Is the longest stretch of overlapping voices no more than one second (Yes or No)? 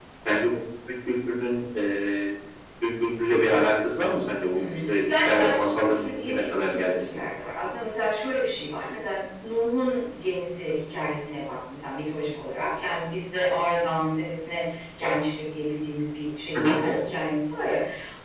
No